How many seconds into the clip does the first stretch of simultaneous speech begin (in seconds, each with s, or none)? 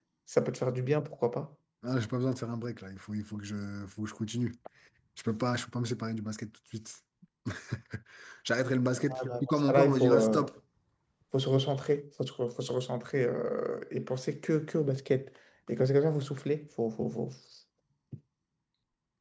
9.0 s